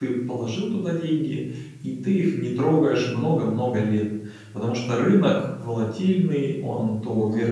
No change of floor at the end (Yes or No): Yes